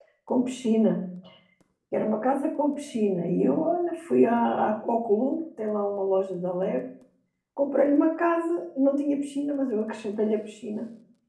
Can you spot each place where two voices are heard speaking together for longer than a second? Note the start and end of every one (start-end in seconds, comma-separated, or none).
none